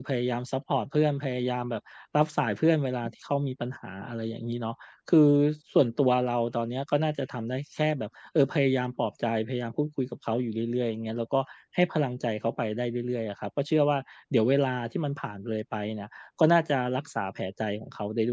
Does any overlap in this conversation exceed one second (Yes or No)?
No